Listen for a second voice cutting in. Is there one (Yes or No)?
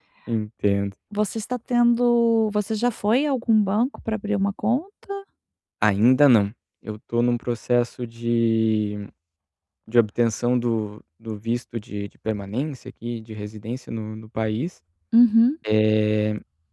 No